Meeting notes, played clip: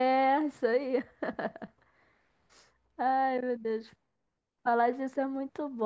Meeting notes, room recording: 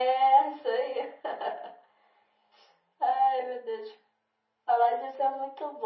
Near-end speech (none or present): none